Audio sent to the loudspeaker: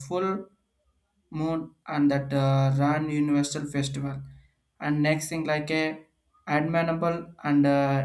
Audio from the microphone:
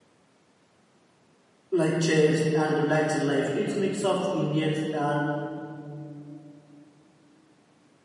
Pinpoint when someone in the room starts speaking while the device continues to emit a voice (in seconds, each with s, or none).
1.7 s